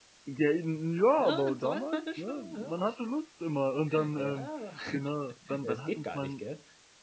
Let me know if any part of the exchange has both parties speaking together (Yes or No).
Yes